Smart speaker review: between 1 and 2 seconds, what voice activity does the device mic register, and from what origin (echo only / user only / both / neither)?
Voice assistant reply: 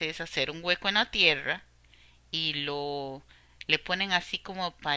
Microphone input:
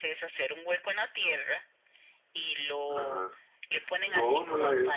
echo only